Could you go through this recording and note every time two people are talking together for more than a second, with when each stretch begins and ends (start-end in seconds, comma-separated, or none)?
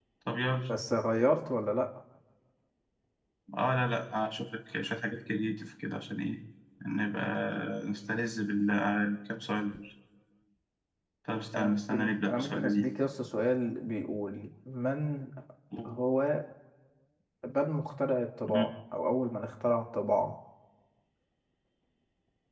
11.6-12.9